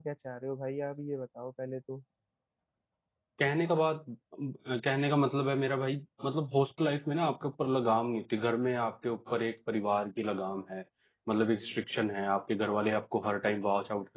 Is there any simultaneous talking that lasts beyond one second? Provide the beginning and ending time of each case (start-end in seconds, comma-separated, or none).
none